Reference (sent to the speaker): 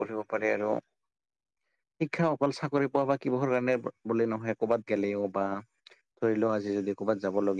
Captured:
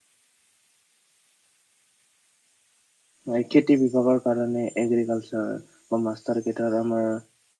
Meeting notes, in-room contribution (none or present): present